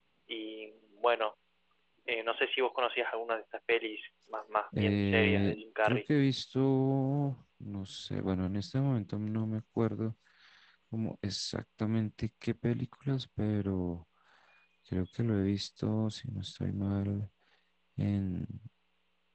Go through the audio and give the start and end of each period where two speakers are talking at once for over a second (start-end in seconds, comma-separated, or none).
4.8-6.0